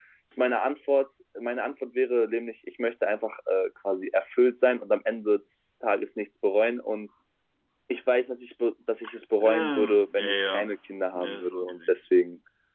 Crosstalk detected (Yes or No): Yes